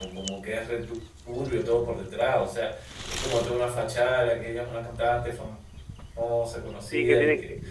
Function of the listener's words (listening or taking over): taking over